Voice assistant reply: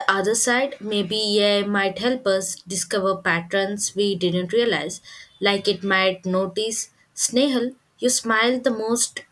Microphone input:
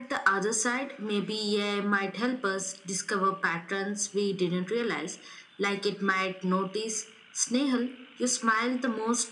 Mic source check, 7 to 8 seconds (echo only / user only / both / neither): echo only